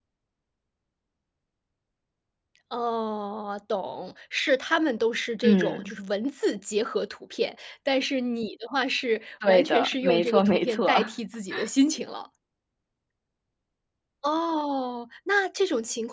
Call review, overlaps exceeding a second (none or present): present